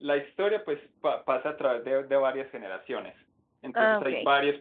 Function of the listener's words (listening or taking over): listening